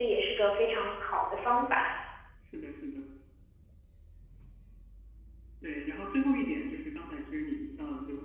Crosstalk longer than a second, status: none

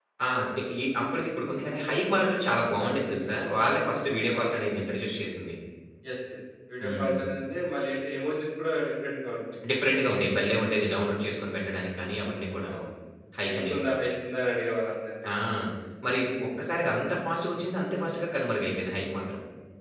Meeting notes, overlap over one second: none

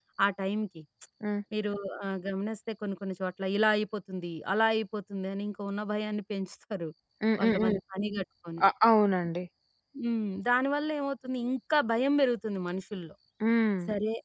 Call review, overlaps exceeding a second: none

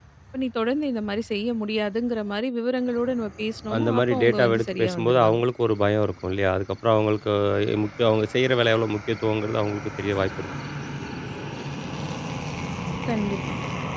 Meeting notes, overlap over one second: present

